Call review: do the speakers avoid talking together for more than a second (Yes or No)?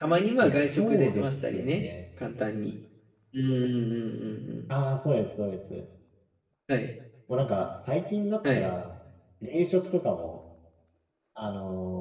No